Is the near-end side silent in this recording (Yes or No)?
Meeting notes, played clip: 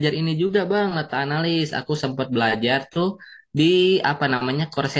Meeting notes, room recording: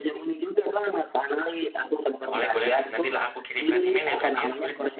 No